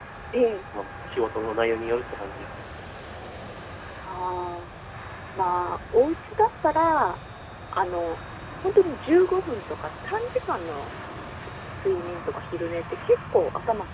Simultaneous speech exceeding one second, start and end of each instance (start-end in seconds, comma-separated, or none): none